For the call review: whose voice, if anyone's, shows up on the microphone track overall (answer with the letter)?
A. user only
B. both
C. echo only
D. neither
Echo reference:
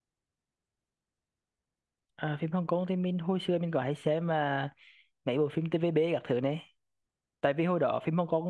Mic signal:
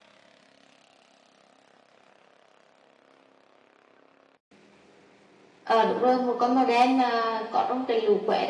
A